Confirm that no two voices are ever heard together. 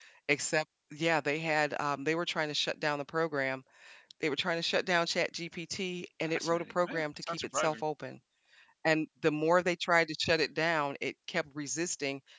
No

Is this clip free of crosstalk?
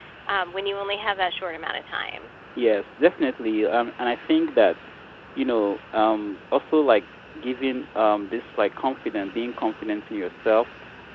Yes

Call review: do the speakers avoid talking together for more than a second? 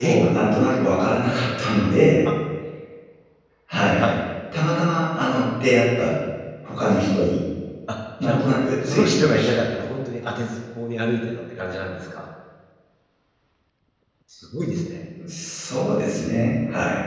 No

